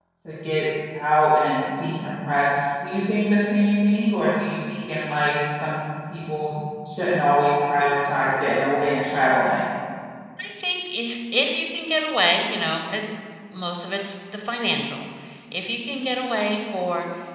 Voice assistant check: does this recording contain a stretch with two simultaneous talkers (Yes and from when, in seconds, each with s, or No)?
No